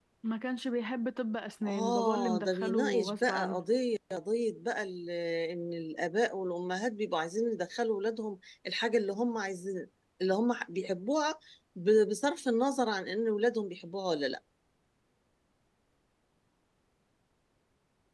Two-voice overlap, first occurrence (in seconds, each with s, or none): 1.6 s